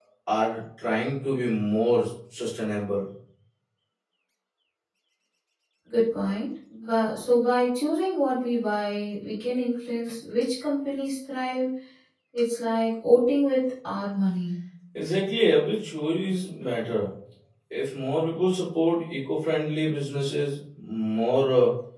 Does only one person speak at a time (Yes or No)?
Yes